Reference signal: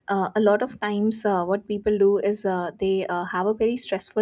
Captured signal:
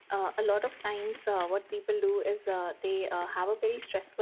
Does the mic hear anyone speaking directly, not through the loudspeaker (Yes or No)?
No